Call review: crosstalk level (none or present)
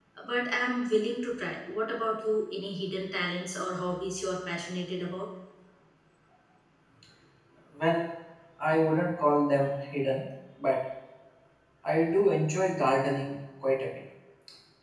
none